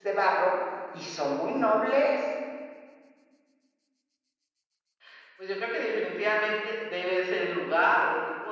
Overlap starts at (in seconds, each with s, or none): none